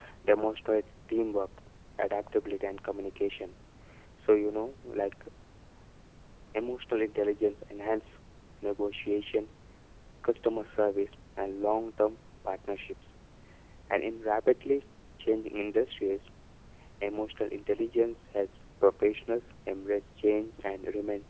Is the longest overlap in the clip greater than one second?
No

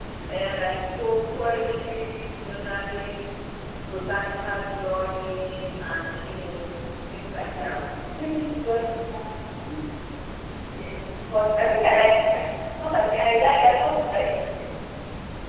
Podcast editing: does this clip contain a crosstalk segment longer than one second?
No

